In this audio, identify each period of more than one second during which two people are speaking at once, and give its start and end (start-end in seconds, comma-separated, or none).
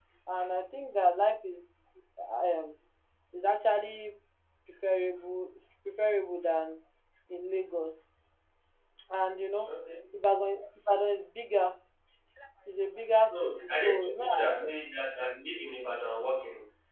13.3-14.7